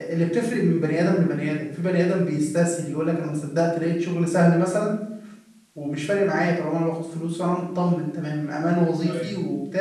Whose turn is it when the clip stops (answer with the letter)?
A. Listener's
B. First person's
B